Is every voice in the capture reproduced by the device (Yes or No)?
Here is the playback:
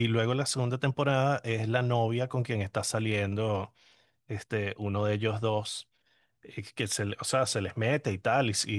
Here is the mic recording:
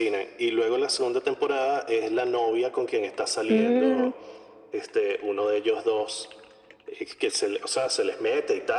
No